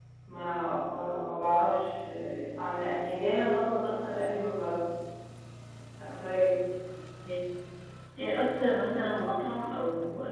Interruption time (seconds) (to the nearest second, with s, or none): none